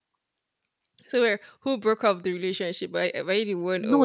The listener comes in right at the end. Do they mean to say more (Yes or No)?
Yes